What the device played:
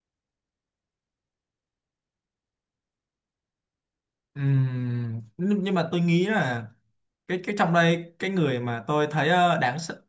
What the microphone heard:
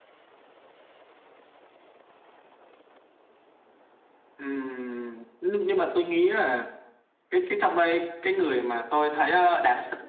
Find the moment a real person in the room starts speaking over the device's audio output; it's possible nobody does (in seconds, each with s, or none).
none